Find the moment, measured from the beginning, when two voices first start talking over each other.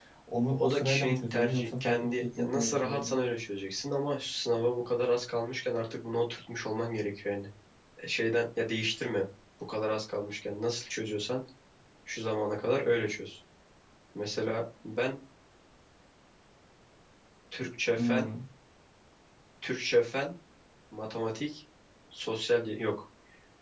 1 s

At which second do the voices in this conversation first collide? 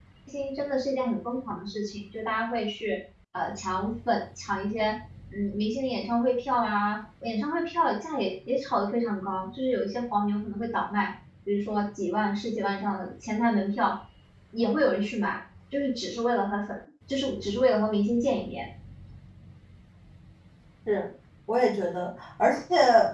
none

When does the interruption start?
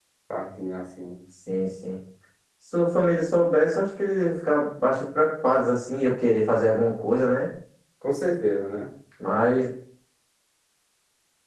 none

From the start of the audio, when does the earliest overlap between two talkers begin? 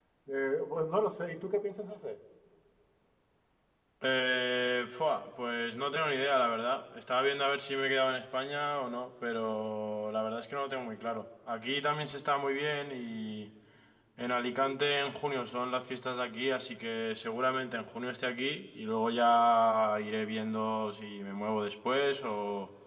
none

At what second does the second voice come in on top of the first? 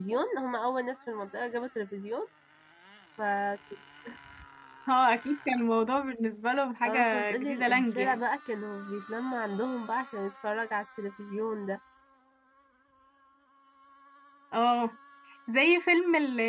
7 s

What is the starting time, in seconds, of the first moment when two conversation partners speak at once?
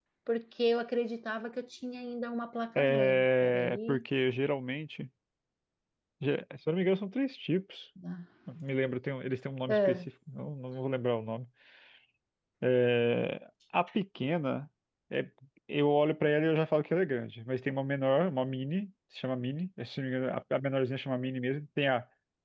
3 s

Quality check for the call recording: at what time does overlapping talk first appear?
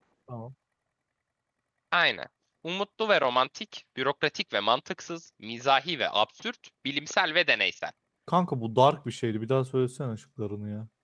none

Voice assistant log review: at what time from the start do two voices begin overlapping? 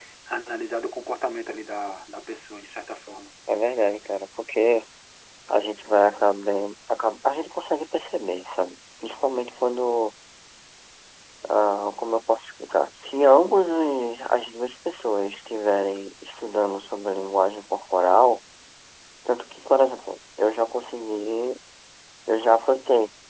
none

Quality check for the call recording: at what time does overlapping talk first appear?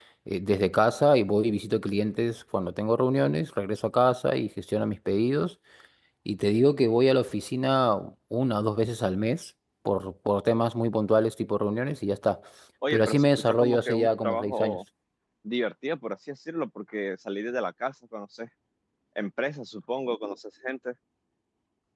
13 s

